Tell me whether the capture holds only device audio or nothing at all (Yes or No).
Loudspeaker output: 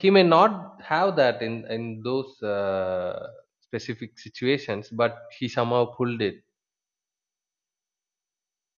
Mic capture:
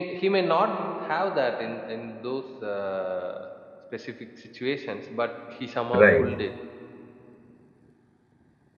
No